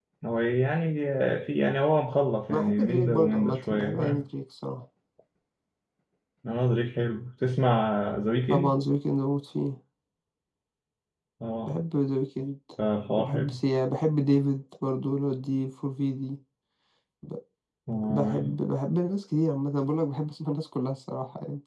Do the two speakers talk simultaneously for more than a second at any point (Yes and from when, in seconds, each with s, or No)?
Yes, from 2.5 s